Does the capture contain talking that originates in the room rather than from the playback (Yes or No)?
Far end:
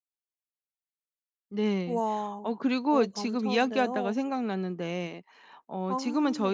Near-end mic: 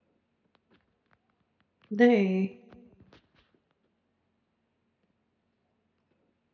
Yes